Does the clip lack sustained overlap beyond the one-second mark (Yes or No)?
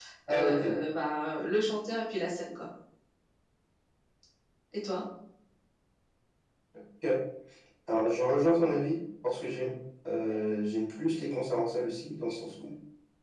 Yes